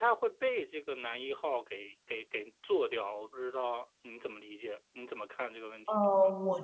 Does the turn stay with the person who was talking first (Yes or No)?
No